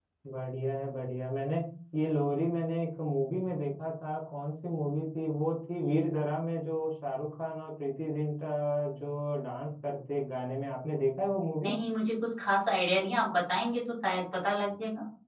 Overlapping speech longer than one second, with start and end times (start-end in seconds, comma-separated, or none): none